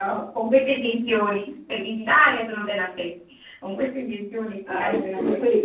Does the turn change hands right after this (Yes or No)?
Yes